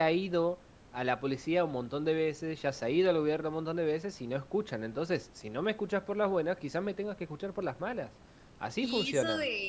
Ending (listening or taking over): taking over